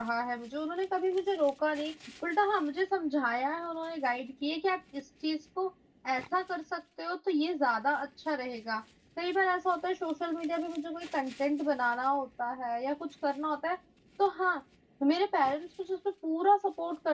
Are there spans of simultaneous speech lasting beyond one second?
No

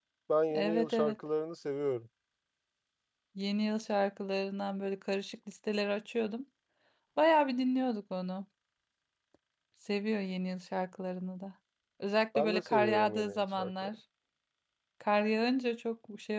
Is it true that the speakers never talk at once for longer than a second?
No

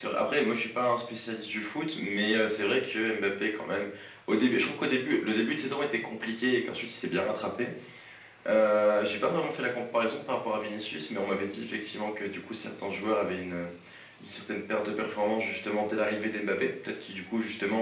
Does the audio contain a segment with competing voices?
No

